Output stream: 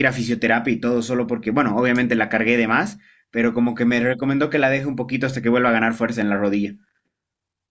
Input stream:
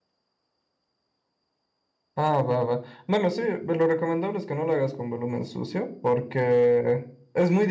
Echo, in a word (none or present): none